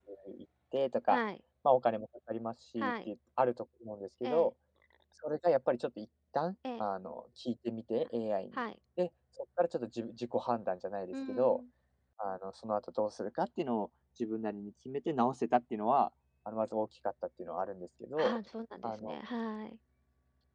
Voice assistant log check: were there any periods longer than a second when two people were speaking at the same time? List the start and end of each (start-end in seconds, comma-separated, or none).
none